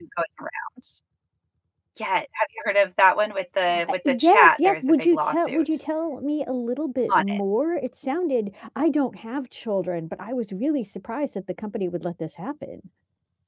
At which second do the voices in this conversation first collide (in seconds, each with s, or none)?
3.9 s